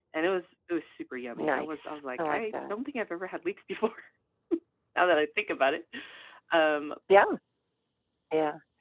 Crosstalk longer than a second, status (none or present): present